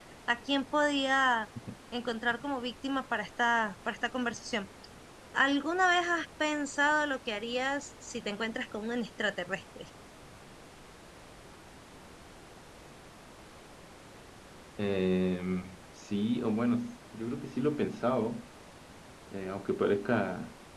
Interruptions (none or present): none